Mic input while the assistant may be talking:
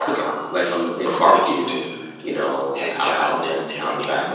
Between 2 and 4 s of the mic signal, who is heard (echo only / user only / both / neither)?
both